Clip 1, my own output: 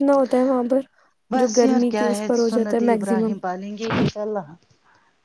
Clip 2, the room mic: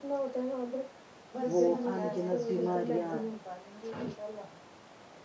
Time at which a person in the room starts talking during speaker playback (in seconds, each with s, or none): 1.5 s